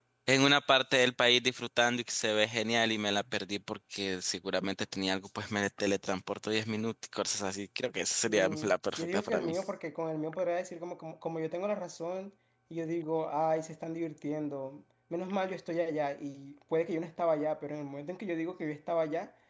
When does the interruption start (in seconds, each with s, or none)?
8.3 s